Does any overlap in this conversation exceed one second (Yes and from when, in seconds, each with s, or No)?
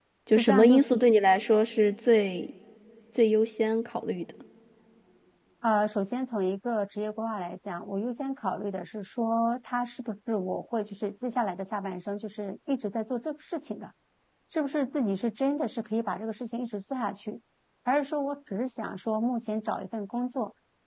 No